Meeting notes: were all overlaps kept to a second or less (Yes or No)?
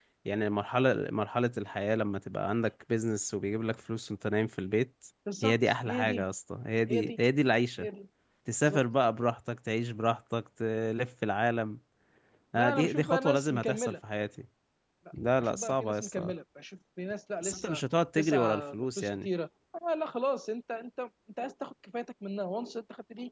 No